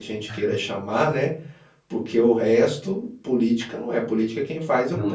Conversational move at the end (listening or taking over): listening